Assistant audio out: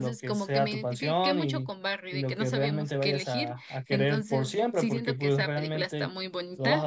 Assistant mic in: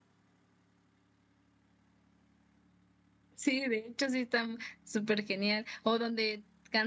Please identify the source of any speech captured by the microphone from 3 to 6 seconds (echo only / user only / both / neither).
user only